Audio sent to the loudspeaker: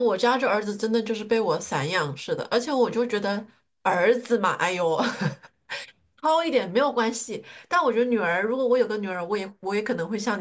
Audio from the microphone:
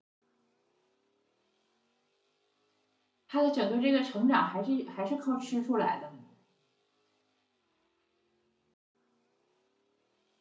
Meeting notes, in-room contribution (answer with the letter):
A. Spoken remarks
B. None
A